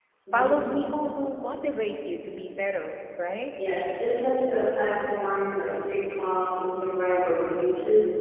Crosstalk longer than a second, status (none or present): none